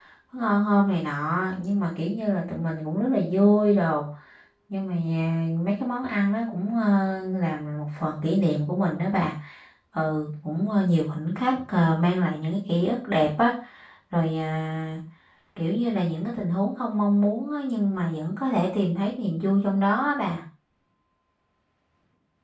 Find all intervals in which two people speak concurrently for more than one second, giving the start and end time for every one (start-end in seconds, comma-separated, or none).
none